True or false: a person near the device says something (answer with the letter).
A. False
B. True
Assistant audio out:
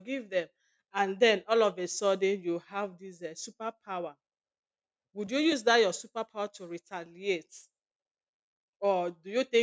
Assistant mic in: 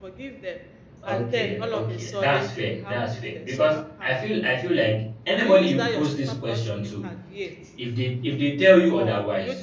B